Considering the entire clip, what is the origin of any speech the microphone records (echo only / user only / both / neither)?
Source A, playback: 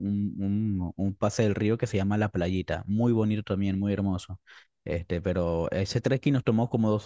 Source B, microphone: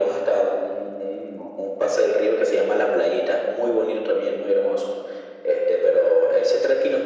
echo only